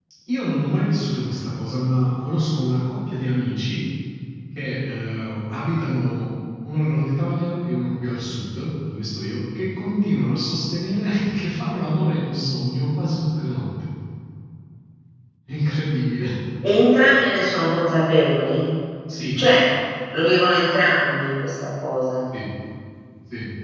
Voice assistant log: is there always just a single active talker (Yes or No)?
Yes